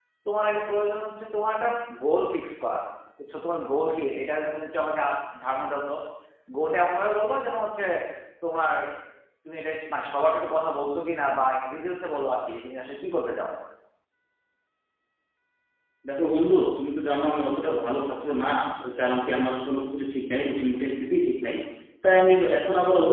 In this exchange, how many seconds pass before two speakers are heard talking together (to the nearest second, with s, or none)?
none